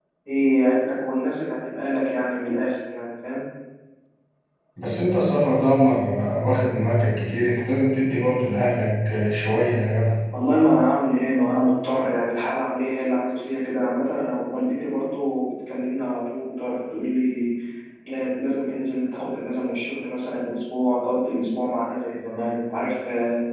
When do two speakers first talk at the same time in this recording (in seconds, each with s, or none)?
none